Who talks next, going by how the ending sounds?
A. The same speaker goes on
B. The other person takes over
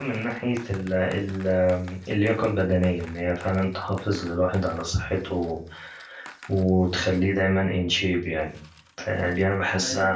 A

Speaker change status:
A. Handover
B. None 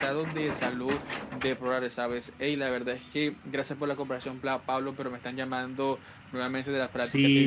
A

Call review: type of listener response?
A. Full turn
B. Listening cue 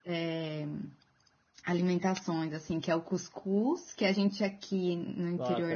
A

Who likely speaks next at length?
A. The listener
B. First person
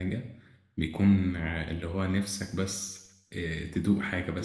A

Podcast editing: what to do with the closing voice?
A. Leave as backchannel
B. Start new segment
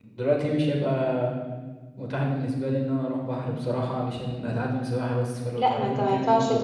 B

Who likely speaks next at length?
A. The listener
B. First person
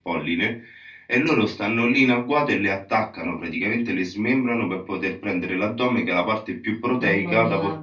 B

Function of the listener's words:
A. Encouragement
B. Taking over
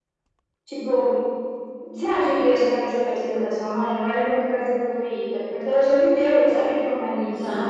B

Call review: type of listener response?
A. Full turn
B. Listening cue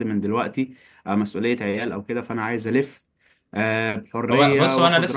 A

